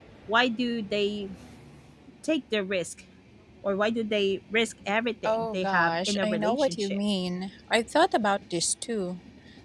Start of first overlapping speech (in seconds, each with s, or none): 5.2 s